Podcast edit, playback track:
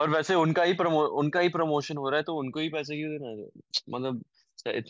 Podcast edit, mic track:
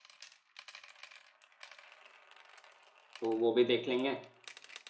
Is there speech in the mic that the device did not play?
Yes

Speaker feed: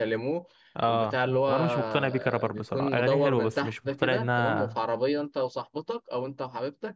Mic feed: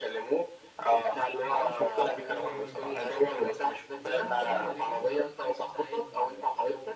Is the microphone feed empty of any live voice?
No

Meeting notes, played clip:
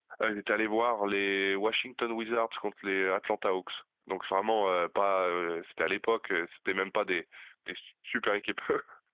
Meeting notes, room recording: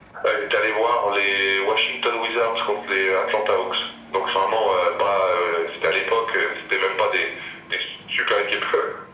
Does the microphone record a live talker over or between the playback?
No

